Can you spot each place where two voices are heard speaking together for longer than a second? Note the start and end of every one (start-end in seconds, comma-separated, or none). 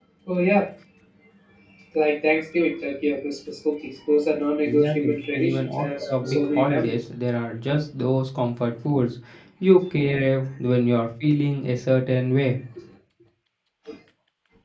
4.6-7.0